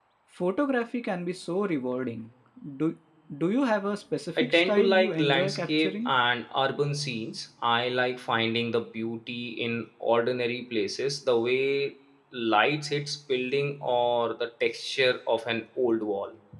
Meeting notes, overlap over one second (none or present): present